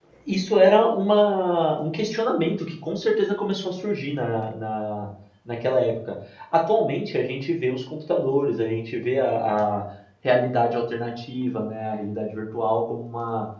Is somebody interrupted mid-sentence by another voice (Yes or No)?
No